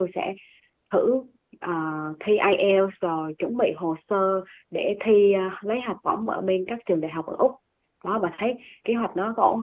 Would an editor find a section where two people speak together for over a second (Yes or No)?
No